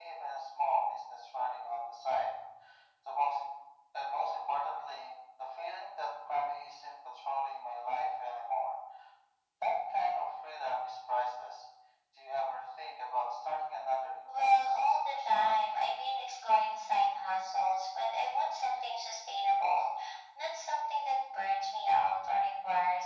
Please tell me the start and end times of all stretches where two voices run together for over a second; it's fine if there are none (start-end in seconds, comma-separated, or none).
14.3-15.5